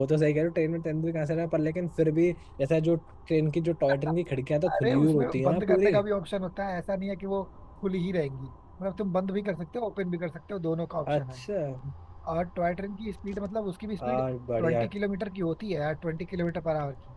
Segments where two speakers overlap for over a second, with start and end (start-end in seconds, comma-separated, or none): 4.7-6.0